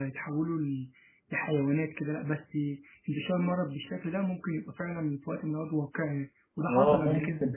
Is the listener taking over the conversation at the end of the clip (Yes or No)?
Yes